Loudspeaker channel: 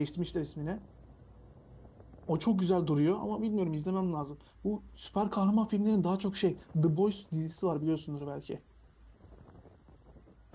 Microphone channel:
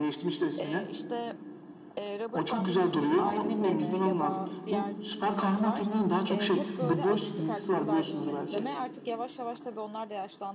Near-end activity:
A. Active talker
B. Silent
A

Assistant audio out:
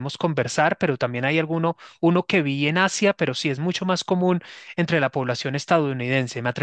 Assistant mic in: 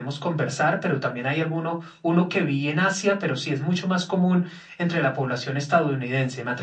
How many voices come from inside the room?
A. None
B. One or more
A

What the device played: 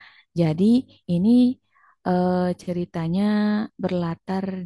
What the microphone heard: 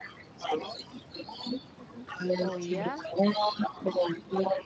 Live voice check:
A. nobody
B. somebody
B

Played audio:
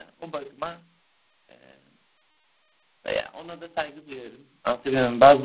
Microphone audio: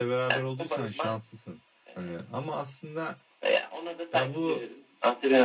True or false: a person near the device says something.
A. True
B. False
A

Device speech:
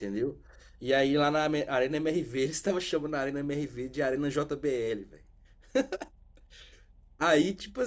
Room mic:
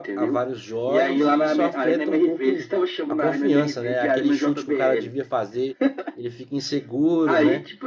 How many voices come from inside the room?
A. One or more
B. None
A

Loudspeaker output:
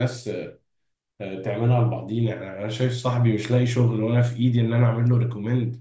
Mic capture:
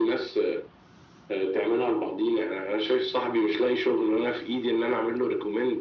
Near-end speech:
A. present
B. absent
B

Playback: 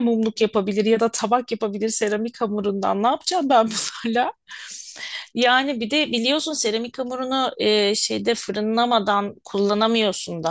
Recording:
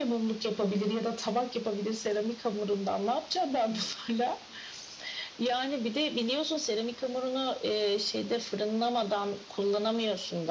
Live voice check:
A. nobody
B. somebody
A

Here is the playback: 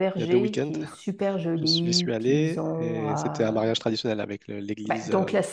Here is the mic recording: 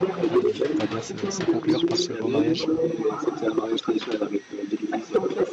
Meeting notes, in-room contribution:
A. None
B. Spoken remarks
B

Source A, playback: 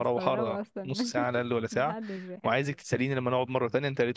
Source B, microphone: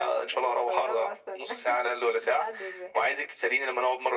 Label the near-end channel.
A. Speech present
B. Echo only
B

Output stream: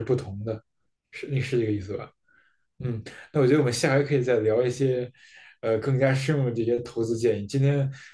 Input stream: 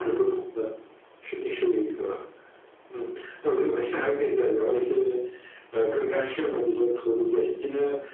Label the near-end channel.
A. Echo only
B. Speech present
A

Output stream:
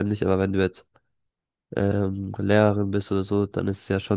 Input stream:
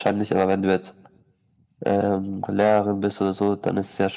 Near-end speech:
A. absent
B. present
A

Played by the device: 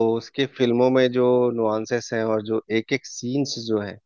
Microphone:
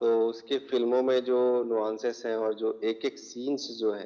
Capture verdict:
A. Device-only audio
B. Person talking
A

